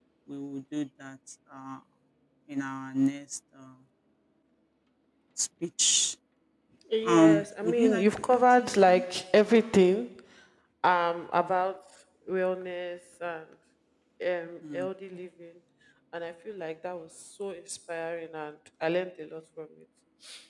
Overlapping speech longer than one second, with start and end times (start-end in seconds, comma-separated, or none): 7.0-9.0